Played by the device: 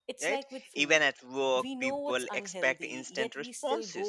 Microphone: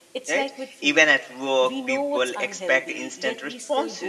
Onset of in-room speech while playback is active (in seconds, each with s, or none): none